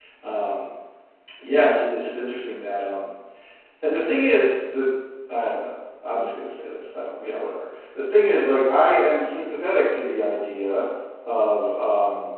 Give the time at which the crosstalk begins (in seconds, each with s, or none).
none